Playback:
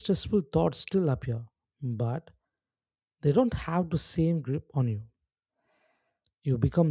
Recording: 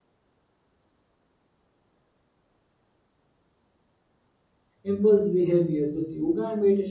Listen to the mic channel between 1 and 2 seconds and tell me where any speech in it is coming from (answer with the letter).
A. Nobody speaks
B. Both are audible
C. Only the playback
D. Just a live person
A